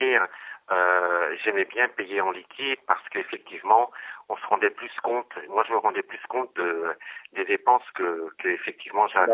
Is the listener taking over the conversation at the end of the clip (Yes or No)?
No